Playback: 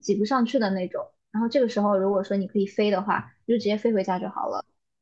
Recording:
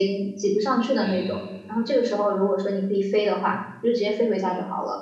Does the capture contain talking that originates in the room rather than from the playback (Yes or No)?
Yes